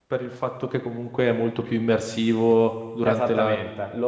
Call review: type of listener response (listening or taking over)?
taking over